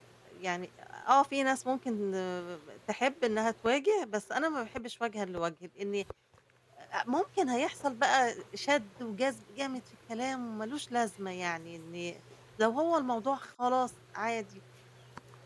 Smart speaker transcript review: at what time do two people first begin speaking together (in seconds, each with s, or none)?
none